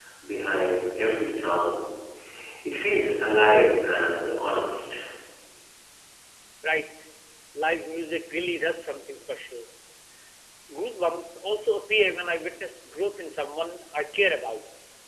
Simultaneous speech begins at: none

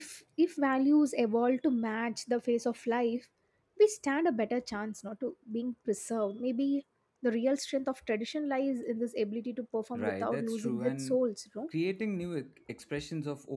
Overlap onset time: 9.9 s

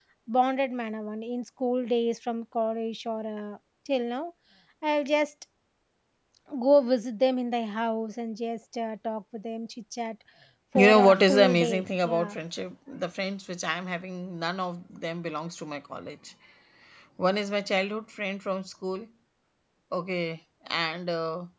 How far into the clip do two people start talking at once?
10.8 s

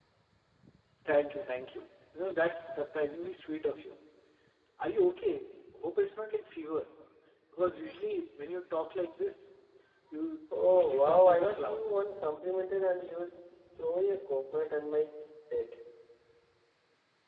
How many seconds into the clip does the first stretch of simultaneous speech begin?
10.7 s

